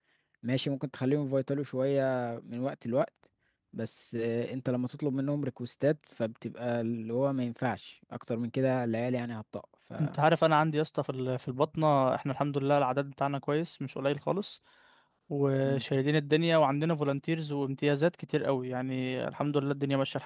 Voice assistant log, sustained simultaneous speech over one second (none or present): none